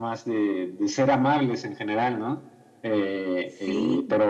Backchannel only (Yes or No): Yes